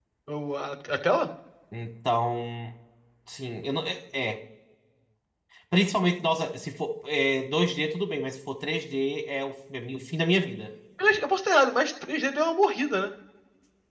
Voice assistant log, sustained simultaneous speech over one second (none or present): none